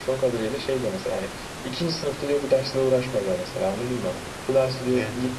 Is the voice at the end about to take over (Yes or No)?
No